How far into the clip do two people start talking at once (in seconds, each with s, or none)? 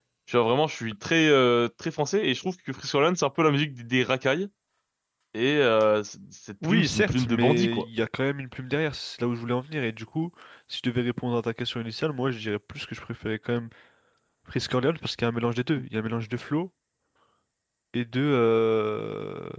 6.6 s